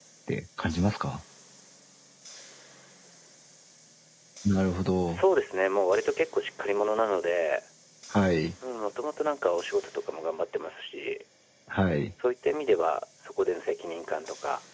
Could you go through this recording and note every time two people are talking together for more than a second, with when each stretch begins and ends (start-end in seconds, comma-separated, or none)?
none